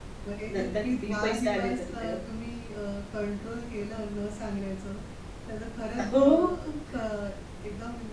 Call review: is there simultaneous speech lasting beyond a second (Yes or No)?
Yes